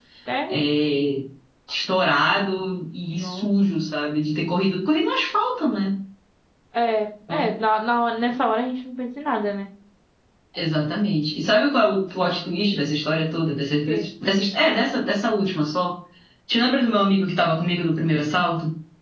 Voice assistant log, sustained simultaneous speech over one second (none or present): none